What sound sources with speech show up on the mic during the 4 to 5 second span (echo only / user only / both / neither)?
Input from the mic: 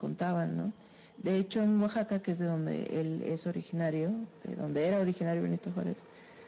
echo only